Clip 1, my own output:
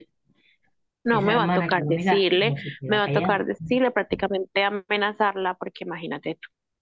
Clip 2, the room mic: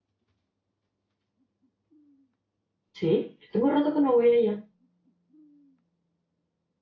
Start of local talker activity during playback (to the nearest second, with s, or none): 3 s